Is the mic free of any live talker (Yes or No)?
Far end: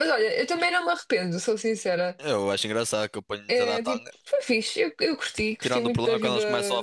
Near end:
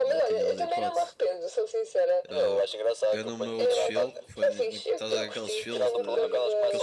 No